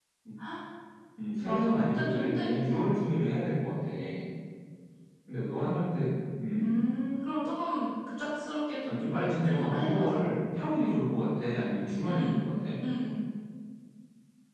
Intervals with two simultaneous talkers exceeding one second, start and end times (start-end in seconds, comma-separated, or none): 1.4-2.8, 8.8-10.2